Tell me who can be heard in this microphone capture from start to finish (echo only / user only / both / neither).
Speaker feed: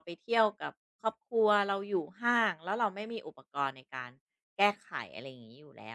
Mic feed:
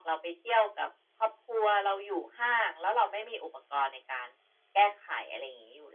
echo only